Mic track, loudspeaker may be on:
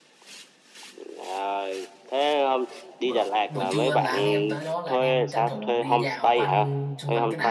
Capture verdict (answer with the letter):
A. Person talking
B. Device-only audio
A